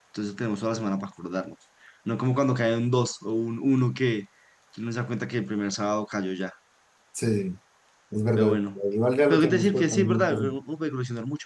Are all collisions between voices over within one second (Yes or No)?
No